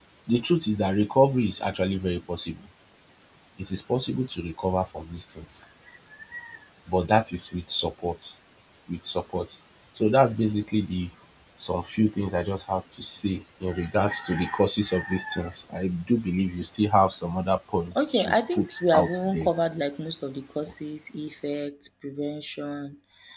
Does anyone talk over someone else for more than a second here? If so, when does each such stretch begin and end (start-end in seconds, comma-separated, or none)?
17.9-19.5